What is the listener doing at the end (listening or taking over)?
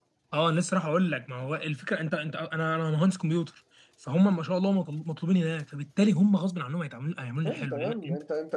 taking over